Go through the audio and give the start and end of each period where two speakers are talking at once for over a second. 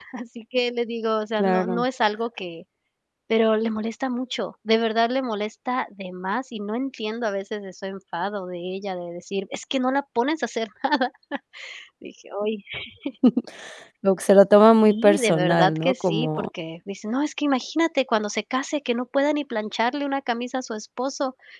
14.8-16.5

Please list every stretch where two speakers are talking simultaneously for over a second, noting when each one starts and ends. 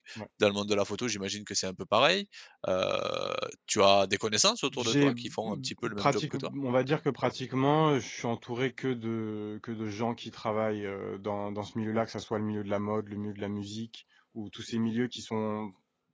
4.8-6.5

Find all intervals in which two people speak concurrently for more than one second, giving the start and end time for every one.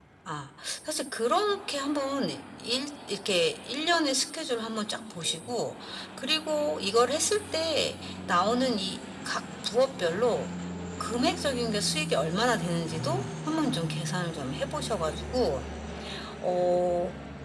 none

